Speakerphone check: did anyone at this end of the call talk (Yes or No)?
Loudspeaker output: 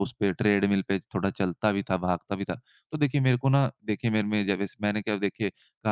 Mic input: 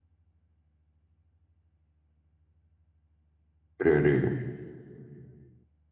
Yes